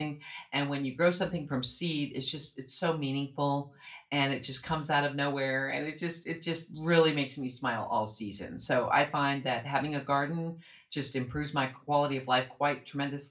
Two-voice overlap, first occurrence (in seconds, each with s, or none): none